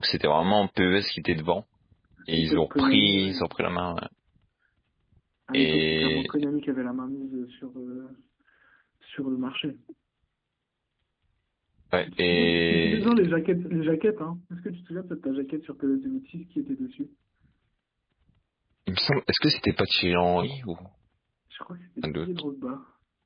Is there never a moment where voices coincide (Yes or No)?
No